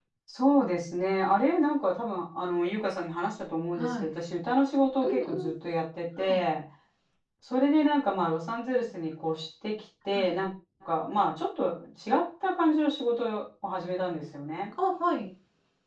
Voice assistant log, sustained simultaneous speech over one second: none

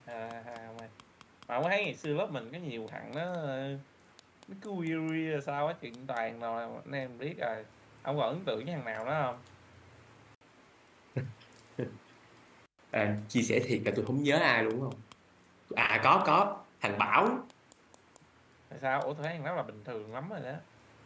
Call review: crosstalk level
none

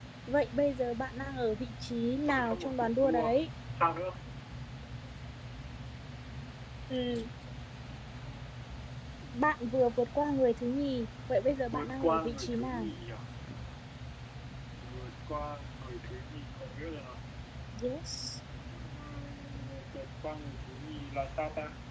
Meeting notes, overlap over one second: present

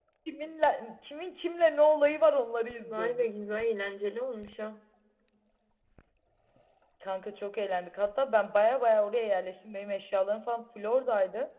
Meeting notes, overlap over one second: none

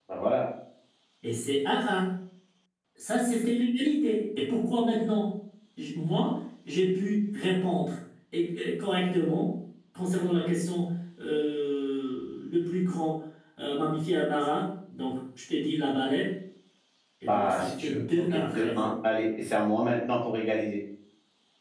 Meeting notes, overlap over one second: present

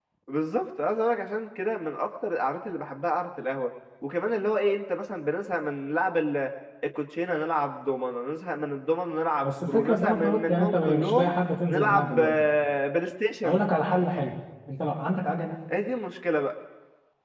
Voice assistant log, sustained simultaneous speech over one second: present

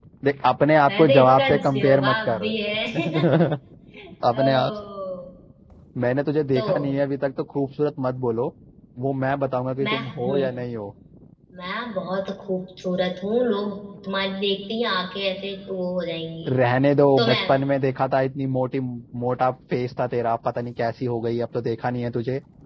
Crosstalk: present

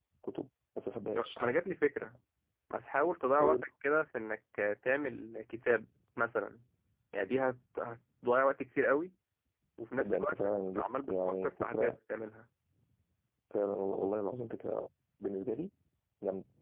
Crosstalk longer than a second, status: present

